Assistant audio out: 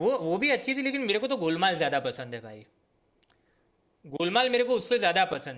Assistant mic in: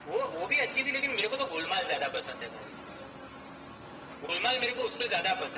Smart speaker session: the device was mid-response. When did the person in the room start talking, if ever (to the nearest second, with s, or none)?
none